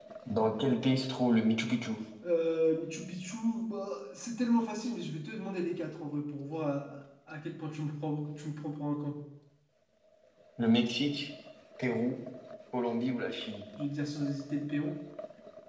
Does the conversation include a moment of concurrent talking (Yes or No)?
No